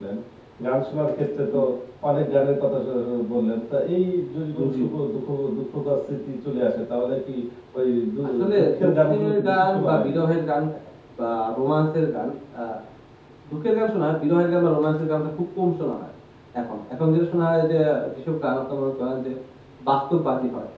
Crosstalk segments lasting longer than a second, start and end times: 8.6-10.2

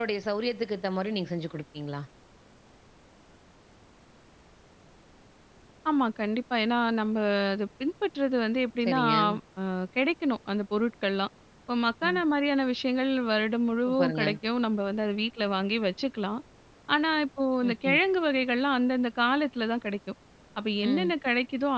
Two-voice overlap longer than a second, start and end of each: none

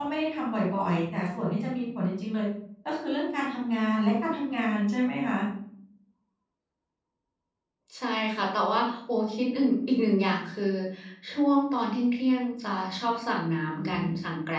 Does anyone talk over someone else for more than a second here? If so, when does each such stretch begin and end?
none

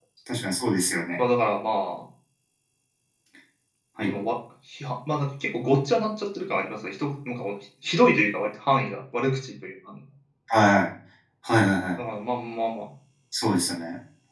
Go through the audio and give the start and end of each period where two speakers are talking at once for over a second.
none

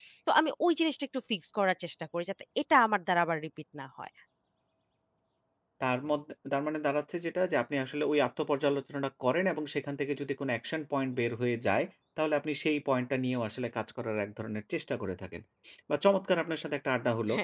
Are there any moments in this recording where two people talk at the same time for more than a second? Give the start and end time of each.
none

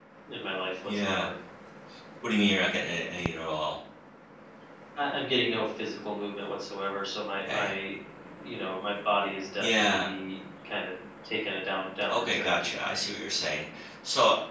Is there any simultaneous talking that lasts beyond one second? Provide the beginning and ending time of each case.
none

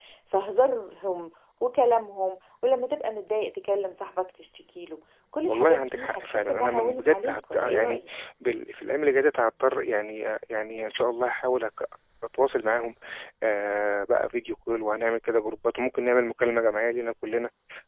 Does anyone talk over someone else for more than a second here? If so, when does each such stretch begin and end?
5.5-8.0

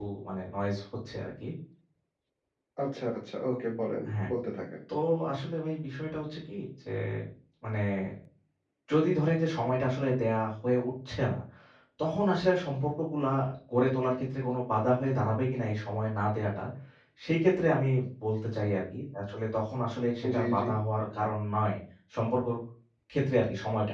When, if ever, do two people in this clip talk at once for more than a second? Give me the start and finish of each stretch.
none

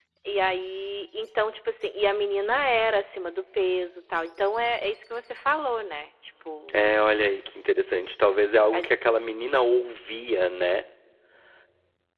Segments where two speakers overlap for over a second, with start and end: none

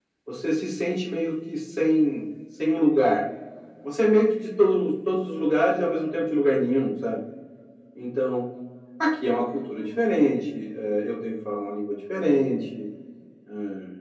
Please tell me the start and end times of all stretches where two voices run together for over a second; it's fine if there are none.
none

